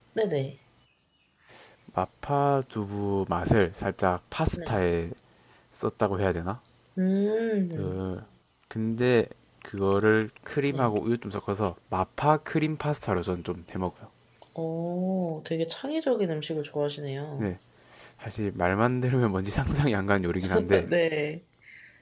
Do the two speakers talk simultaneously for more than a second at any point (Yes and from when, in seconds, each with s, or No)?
No